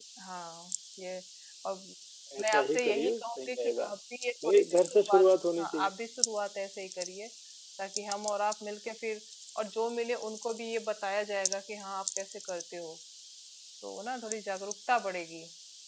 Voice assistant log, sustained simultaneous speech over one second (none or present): present